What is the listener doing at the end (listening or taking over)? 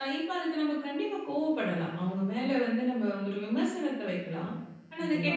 listening